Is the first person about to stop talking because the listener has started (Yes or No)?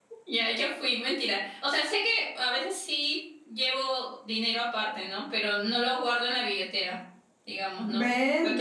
Yes